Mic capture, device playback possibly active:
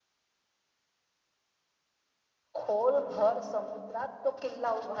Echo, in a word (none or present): none